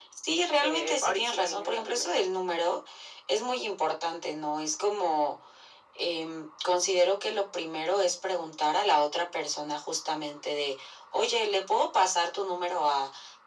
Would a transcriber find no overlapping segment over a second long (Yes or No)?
No